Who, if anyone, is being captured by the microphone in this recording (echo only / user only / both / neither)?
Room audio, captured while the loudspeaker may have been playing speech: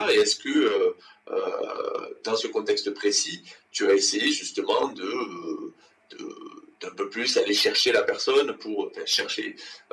echo only